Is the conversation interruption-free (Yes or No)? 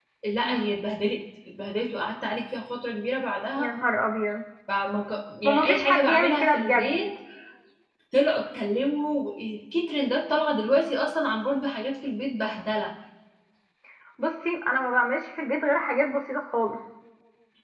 No